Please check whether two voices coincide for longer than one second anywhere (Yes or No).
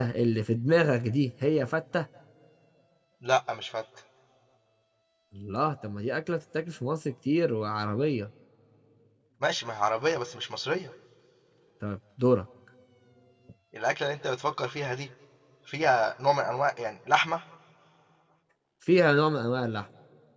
No